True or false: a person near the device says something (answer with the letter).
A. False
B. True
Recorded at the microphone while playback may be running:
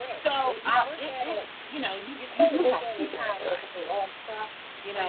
A